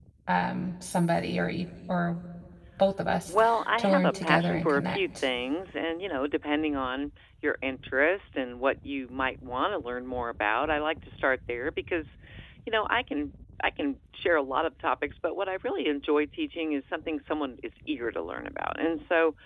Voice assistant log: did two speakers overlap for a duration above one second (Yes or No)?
Yes